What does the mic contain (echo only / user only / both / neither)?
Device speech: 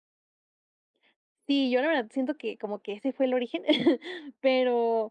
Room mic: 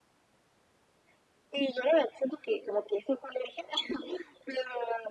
echo only